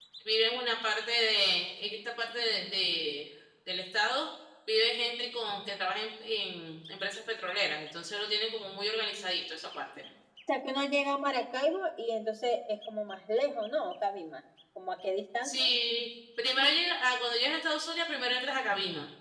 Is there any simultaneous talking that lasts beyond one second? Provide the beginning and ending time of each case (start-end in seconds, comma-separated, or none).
none